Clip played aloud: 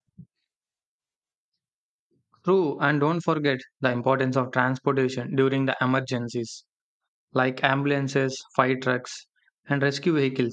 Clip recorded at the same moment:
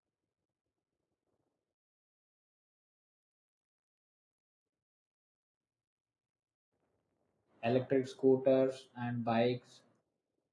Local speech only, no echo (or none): electric scooters and bikes,